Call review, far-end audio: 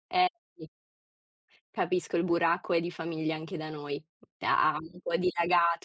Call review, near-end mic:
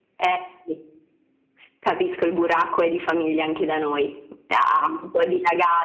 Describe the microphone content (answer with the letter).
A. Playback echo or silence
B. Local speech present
A